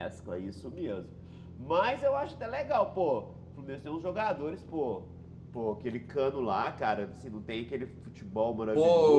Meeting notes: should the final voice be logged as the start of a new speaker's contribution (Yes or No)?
Yes